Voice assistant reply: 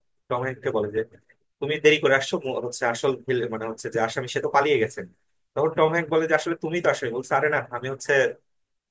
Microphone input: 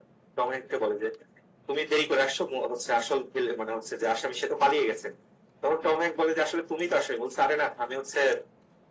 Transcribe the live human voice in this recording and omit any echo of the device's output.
none

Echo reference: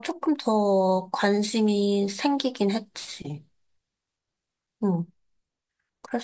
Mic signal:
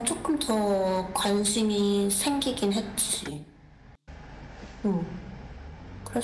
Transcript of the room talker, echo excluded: none

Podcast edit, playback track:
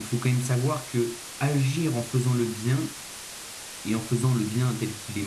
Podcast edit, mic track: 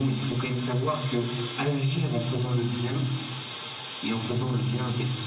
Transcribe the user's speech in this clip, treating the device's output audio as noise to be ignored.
none

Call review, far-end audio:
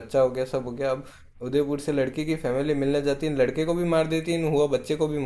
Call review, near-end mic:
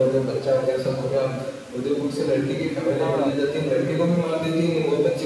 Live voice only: हाँ

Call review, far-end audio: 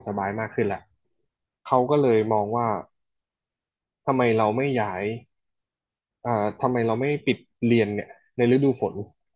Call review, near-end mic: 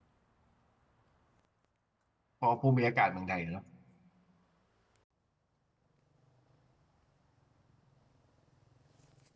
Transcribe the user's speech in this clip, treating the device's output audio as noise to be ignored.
เพอภูมิอากาศเมืองไทยเนอะ

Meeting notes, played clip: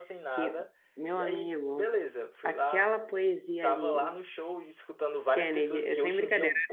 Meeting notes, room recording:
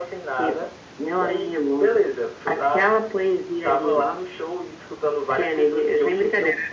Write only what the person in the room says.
none

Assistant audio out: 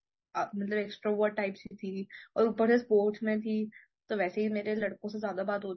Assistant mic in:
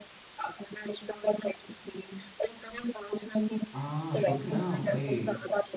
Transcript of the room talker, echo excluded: हाँ श्रुति ना वही

